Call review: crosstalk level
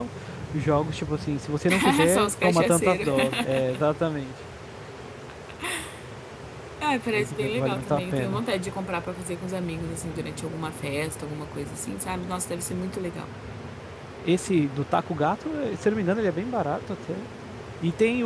present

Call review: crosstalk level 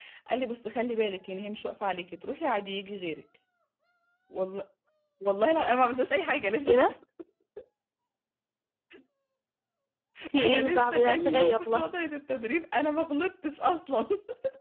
present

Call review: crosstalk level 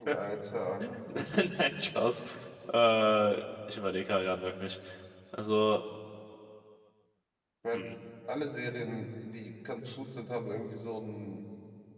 none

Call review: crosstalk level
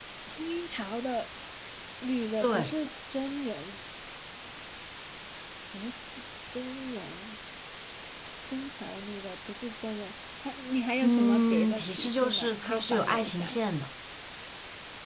present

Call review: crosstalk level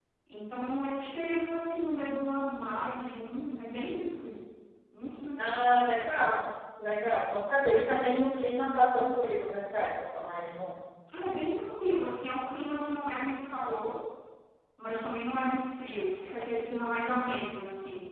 none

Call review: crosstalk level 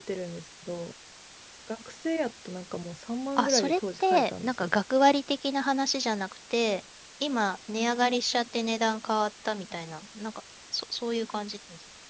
present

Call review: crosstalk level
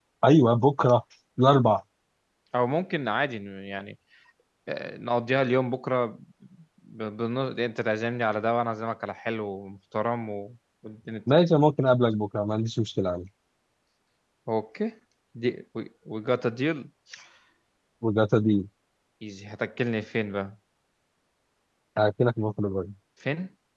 none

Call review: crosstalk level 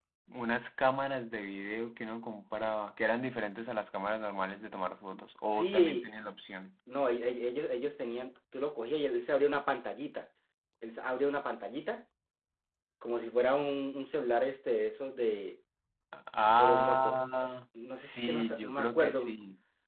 present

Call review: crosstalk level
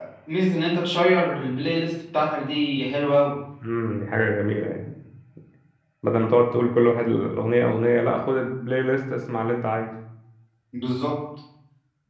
none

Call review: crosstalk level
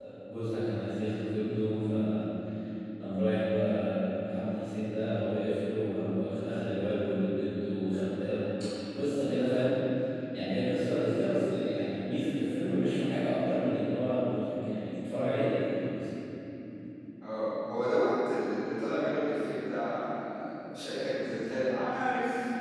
none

